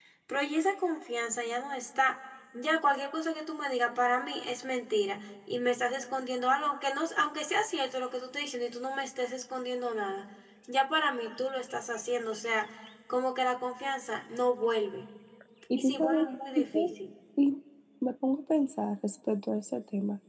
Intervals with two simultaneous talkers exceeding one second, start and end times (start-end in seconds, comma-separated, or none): 15.7-17.0